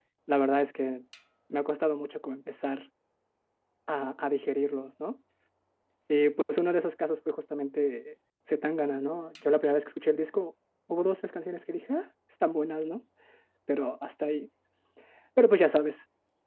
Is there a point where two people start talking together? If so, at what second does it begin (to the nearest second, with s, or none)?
none